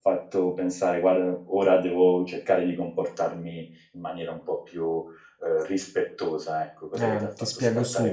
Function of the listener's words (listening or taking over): taking over